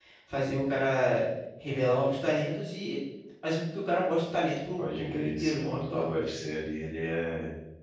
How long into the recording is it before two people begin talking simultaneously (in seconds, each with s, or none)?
4.8 s